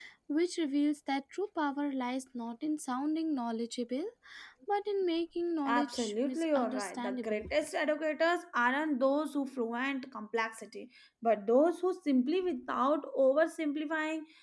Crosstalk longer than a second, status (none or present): present